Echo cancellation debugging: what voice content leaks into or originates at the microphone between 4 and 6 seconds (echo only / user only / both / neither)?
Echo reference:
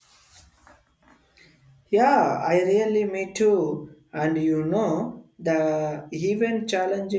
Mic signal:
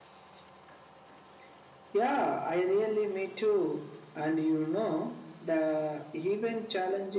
echo only